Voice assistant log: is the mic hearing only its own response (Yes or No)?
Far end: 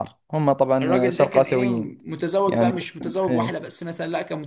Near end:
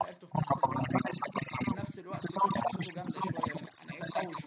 No